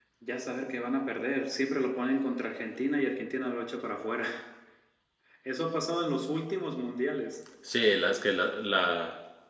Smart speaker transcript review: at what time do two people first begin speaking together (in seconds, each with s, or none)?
none